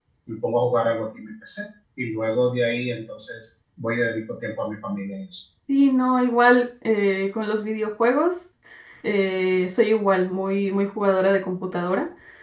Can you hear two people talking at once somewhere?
No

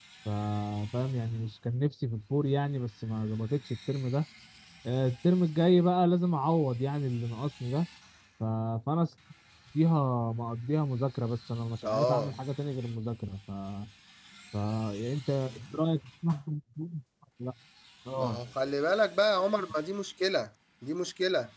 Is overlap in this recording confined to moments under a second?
Yes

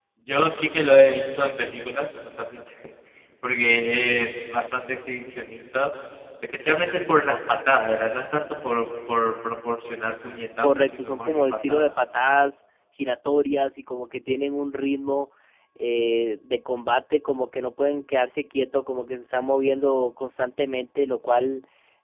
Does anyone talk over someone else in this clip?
Yes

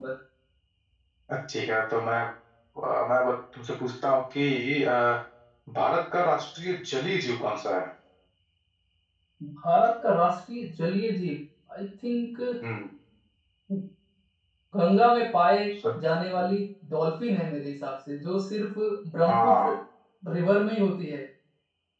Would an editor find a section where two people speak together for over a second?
No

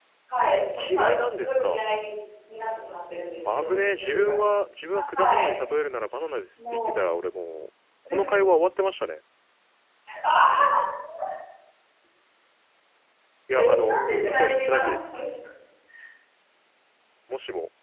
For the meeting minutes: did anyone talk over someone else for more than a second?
Yes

